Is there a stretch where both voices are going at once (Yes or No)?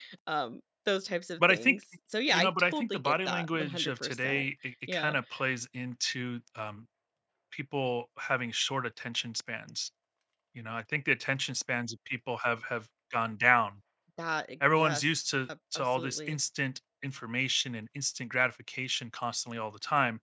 Yes